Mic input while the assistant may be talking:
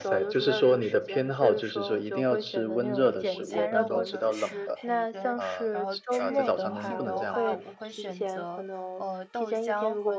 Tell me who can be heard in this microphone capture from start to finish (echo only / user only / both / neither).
both